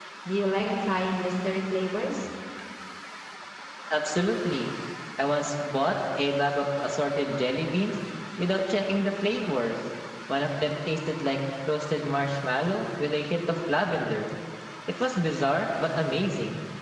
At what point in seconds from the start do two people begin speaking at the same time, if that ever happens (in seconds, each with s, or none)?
none